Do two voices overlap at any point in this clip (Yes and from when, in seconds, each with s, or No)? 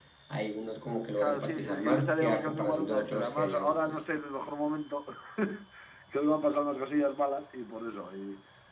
Yes, from 1.2 s